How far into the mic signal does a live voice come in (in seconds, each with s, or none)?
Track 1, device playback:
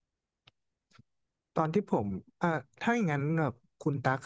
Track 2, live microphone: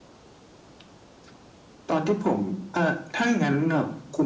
none